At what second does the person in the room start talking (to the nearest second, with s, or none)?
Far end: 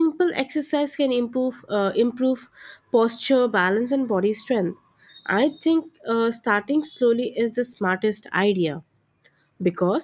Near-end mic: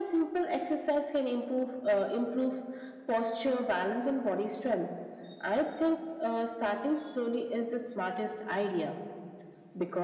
none